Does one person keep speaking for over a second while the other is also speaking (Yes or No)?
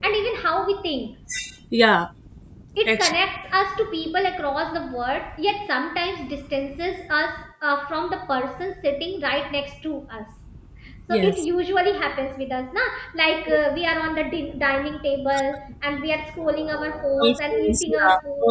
Yes